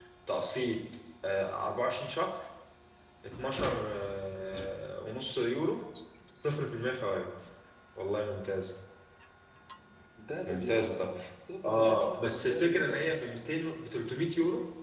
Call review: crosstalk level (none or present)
present